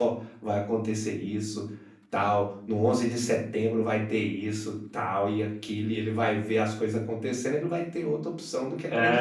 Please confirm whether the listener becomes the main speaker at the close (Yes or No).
Yes